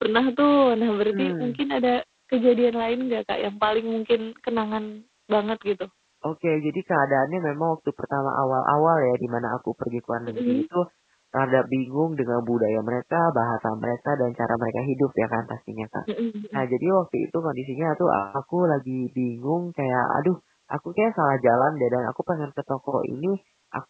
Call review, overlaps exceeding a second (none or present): none